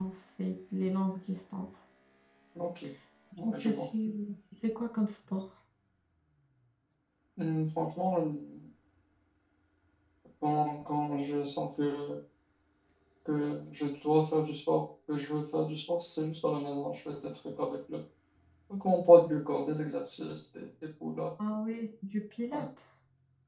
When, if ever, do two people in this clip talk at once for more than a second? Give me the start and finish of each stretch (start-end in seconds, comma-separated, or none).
none